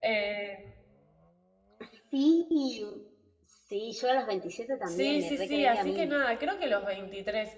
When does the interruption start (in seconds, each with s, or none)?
4.9 s